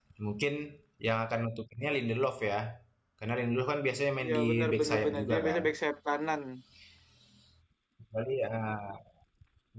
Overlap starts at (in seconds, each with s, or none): 4.2 s